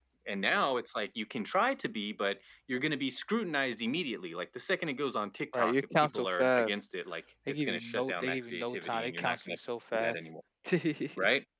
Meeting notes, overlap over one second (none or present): present